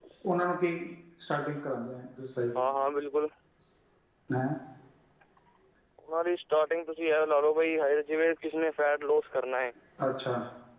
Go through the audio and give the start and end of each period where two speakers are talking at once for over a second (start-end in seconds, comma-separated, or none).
none